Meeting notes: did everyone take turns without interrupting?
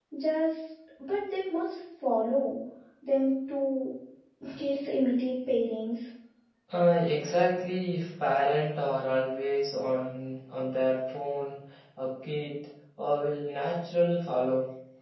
Yes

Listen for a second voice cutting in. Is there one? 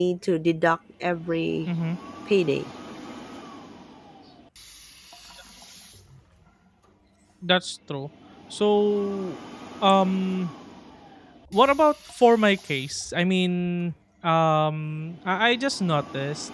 No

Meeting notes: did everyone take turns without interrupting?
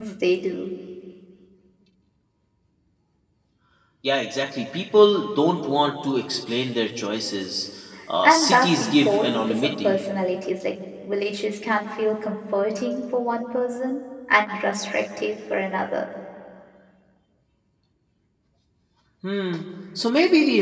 No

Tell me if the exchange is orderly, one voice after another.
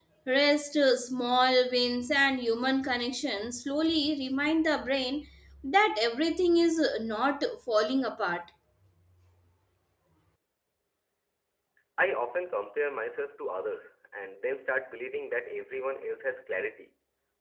Yes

